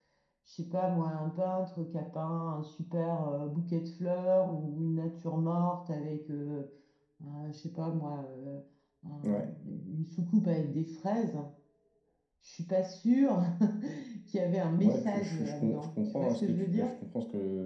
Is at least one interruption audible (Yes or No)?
Yes